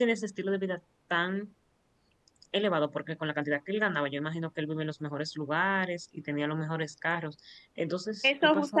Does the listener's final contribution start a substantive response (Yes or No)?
Yes